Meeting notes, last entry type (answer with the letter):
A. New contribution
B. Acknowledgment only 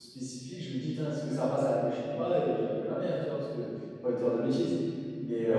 B